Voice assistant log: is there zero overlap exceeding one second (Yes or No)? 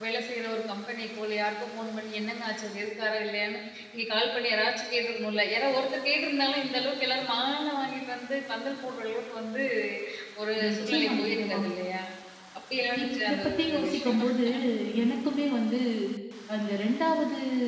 No